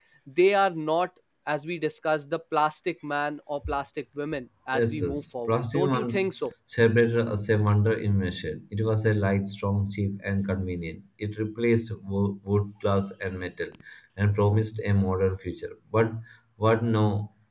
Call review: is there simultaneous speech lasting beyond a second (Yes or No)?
Yes